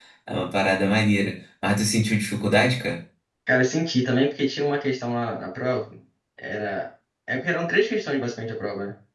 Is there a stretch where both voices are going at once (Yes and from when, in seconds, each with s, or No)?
No